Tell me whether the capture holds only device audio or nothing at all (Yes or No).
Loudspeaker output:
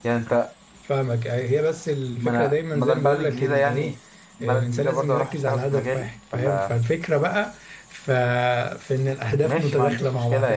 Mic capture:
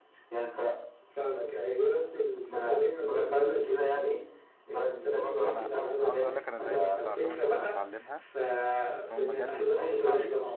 No